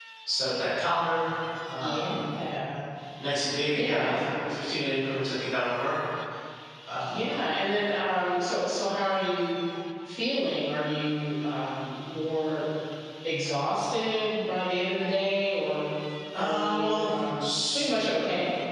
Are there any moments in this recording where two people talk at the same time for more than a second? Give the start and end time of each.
16.4-17.9

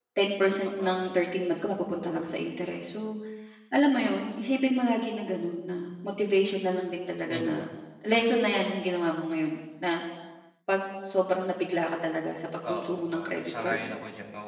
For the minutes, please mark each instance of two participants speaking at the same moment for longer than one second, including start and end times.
12.6-14.0

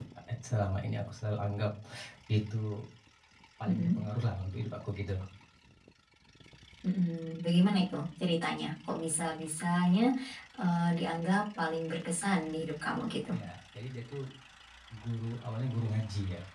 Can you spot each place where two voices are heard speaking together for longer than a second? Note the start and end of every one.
none

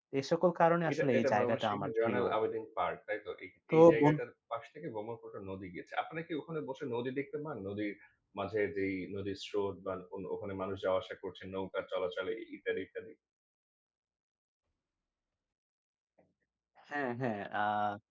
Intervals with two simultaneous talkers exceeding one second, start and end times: 0.9-2.2

